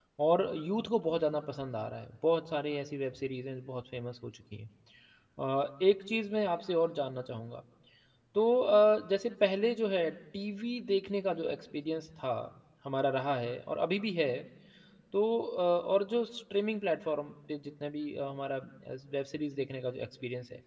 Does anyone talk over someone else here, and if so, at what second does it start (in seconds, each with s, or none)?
none